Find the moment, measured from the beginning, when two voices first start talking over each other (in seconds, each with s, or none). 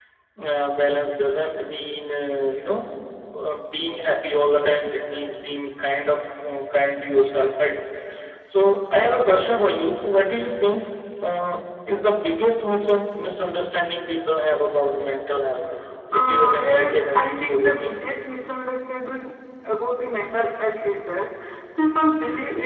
16.2 s